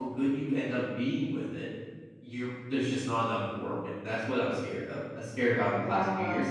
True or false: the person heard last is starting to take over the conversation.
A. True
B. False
B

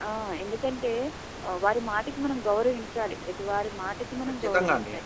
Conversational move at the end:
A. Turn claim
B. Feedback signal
A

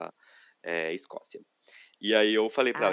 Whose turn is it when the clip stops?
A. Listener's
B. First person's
B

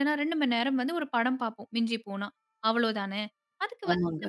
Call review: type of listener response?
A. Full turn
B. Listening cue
B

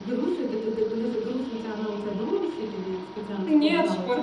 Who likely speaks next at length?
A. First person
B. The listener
B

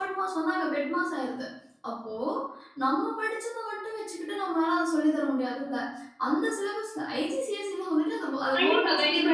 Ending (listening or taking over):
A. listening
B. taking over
B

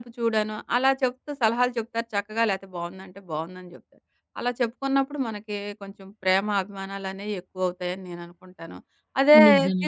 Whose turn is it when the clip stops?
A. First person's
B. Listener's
A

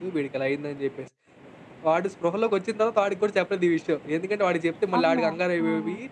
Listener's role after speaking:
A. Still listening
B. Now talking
A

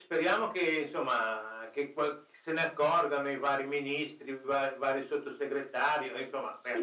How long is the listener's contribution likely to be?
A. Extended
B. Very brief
A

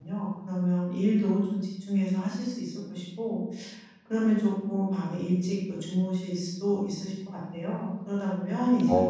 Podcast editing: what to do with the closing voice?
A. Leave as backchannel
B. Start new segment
A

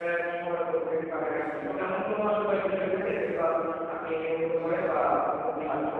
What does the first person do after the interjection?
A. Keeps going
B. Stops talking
B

